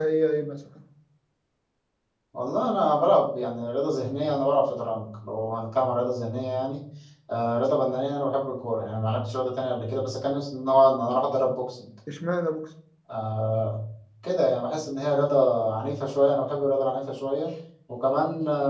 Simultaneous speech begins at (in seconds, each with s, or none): none